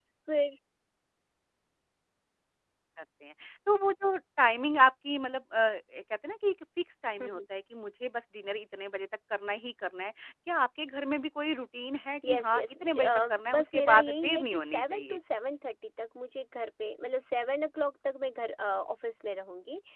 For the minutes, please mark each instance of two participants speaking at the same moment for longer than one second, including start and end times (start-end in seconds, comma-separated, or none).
12.3-15.2